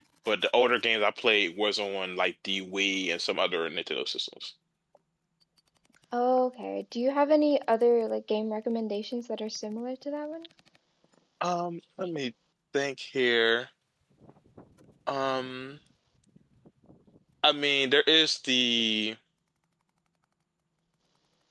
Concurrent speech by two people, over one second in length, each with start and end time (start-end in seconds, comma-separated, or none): none